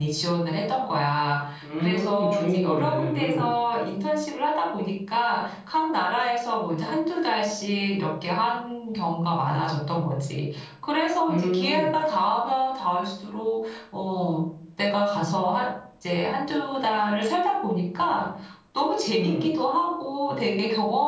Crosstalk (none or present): present